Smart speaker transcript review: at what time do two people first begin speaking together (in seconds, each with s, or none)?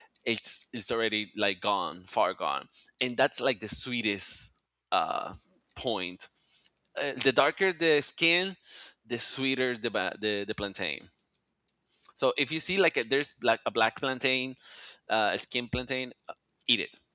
none